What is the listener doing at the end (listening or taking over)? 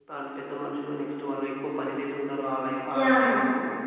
taking over